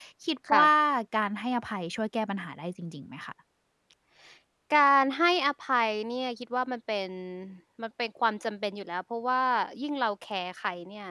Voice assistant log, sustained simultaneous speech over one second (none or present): none